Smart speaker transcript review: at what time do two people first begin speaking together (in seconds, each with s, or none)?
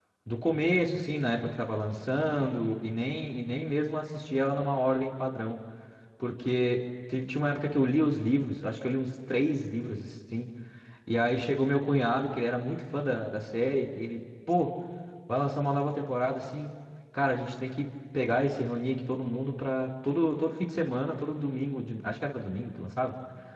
none